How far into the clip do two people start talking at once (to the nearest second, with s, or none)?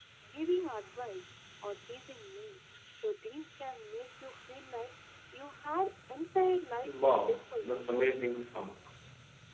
7 s